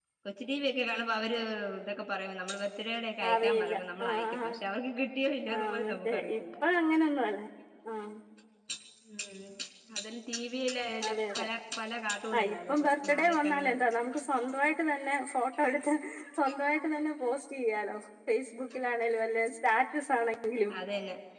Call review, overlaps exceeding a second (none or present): present